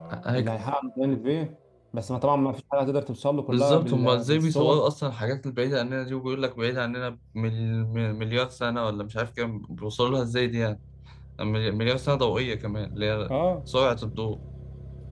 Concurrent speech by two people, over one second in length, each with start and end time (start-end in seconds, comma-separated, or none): 3.5-4.8